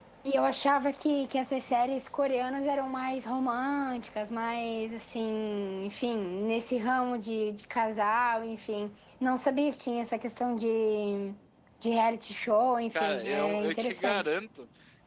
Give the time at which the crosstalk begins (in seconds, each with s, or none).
13.0 s